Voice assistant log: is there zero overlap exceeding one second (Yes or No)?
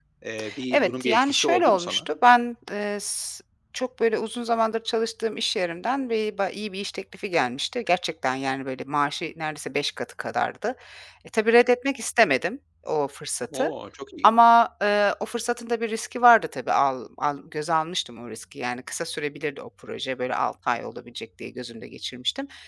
No